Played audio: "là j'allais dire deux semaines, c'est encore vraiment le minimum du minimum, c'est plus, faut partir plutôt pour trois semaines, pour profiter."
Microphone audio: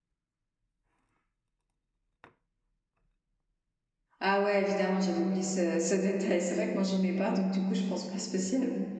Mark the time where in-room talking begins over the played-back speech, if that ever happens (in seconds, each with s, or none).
4.2 s